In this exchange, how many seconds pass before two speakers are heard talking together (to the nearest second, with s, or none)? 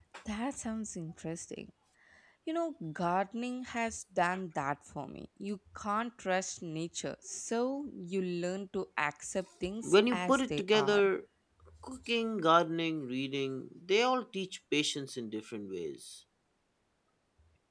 10 s